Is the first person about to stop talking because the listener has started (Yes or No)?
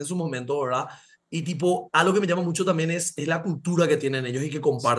Yes